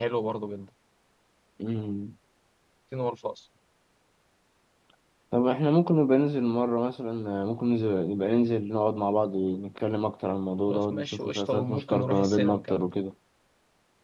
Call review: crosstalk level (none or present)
present